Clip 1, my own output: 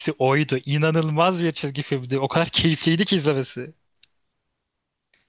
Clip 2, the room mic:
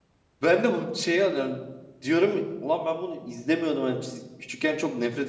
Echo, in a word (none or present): none